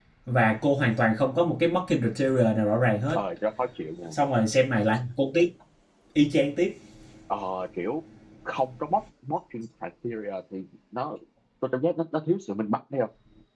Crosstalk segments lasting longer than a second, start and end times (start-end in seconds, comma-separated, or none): none